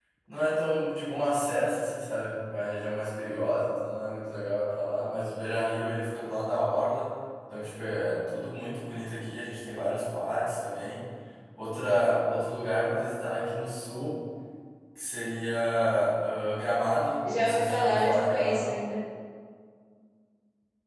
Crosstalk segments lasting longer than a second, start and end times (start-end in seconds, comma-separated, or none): 17.3-18.7